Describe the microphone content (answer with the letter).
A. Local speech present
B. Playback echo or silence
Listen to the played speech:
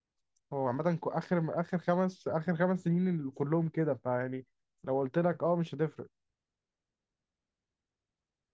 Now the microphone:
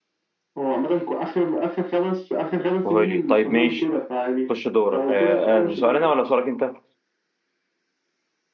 A